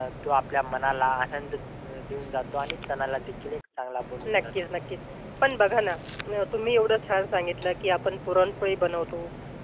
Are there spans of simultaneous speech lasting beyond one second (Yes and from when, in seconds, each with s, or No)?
No